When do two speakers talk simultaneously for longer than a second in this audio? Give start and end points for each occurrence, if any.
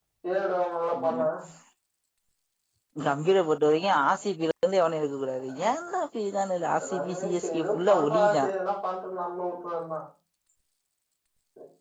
6.8-8.4

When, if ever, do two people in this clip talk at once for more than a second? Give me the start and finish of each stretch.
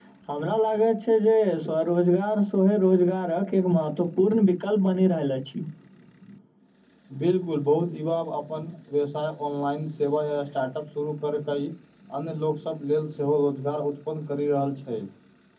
none

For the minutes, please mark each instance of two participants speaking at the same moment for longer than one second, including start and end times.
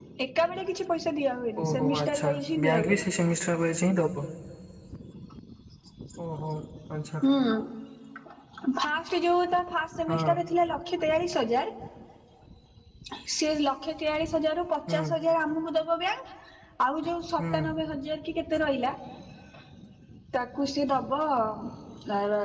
1.6-3.0

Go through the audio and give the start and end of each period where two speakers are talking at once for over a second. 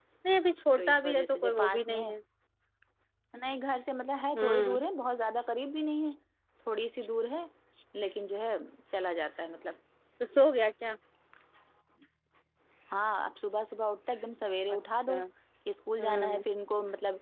0.8-2.1

